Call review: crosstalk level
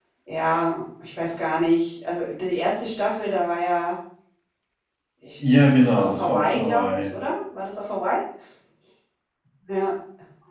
present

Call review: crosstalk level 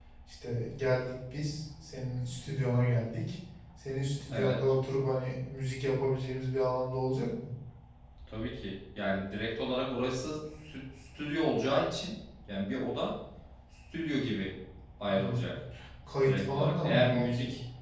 present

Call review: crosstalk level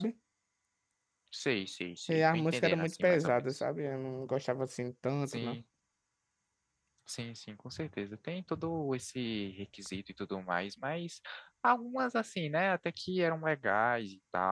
present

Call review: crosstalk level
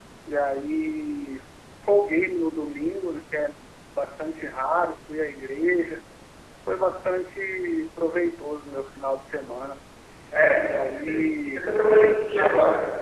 present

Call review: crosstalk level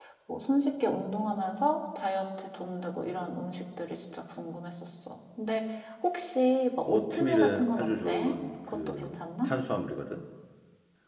present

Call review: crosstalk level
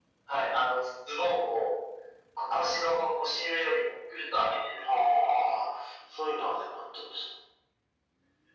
none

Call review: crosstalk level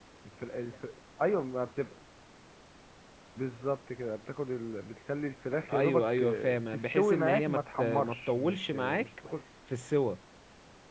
present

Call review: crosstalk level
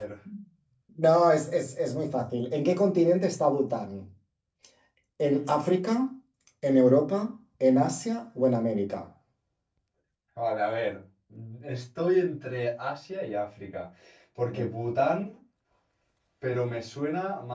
none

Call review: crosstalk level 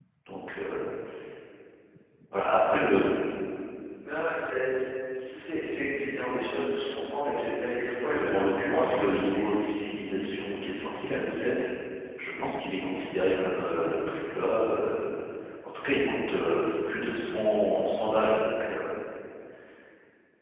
present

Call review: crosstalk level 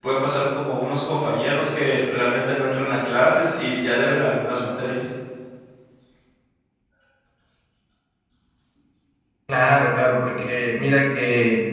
none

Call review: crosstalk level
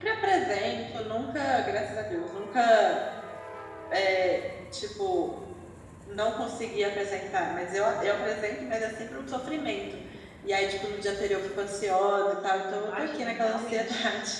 present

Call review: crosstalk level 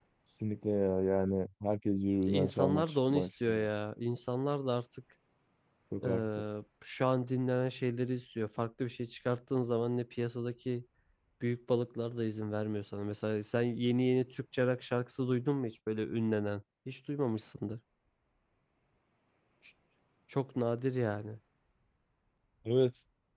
present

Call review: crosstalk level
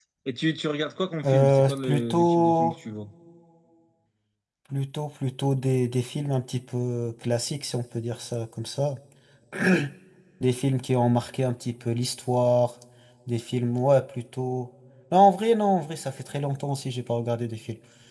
present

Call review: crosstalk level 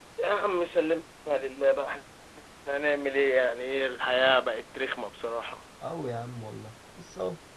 none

